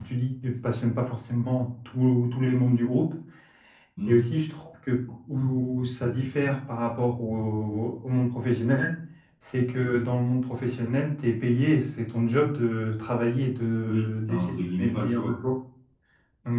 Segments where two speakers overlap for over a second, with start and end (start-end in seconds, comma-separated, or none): 13.8-15.3